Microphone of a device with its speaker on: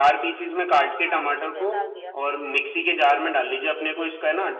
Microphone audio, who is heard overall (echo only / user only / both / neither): both